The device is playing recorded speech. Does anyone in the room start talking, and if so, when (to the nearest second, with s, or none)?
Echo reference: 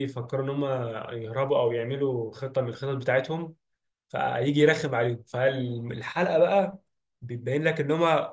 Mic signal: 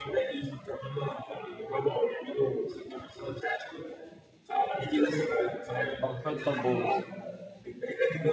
6 s